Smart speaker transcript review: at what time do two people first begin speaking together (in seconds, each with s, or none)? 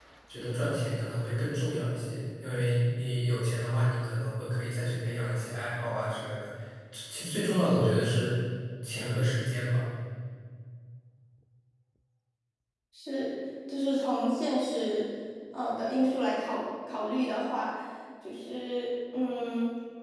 none